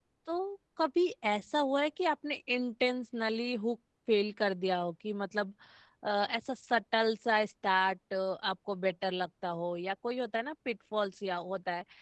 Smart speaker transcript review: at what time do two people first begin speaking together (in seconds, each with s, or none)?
none